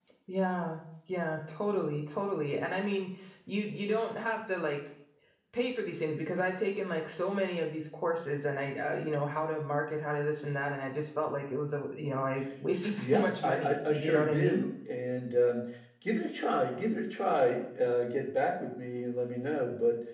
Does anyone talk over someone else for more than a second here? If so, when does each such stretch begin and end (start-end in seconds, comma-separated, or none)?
12.9-14.6